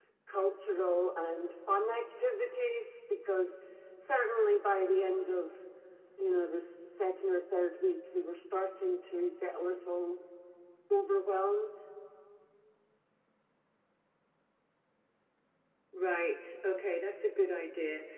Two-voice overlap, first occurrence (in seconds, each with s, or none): none